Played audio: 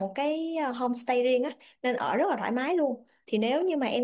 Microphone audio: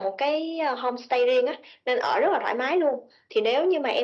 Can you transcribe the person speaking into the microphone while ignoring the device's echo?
none

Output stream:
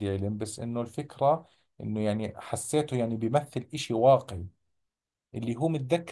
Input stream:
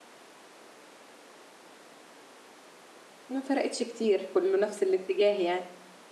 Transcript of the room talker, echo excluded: ما فرقتش كتير كله نفس الاتجاه يعني

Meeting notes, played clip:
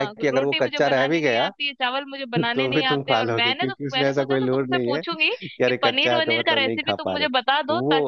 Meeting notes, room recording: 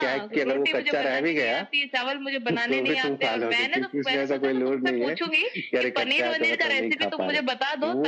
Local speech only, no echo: none

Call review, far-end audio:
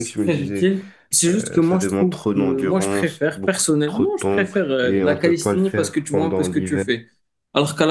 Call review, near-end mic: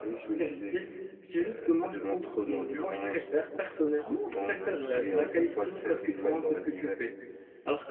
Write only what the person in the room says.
en algorithmie. Je sais pas, c'est une matière

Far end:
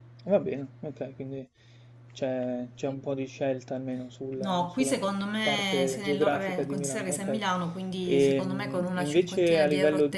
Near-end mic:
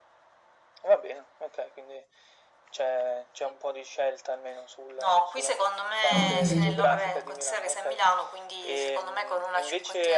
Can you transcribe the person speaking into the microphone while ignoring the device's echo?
Ok.

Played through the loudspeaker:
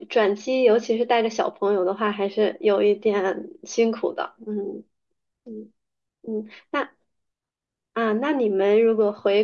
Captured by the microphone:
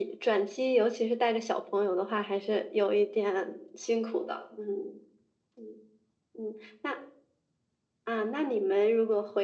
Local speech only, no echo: none

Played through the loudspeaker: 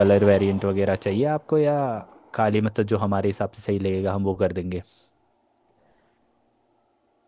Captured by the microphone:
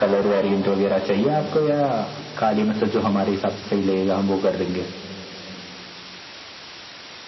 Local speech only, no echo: none

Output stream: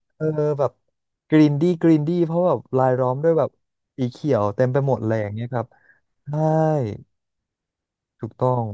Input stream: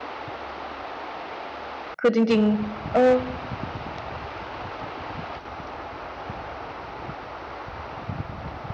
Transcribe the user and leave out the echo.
คือจริงๆเออ

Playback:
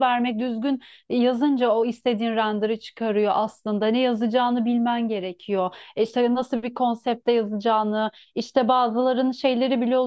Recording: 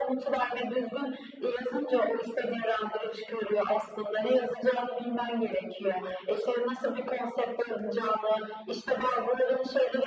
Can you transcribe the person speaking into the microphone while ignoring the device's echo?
none

